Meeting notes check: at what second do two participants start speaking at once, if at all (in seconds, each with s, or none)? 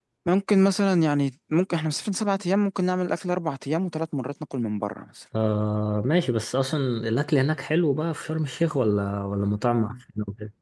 none